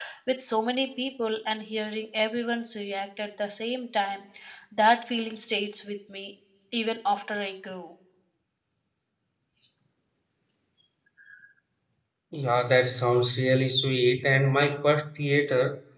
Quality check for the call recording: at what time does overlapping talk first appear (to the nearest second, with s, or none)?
none